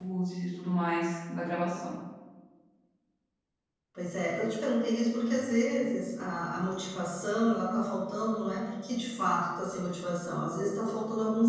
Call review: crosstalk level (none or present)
none